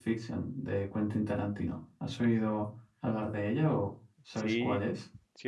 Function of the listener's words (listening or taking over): taking over